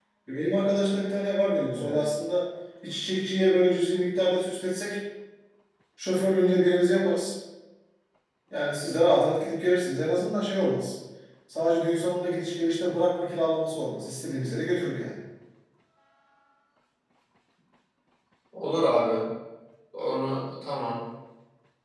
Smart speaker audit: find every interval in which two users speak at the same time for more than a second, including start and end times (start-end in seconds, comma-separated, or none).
none